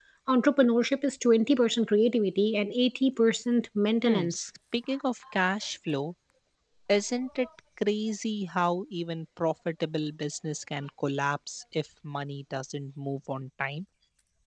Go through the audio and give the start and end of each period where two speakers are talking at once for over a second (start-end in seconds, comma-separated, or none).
none